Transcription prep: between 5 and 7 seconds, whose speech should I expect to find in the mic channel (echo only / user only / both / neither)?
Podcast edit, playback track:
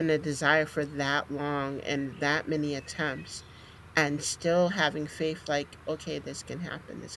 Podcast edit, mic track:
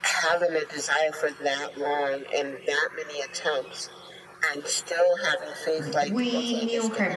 both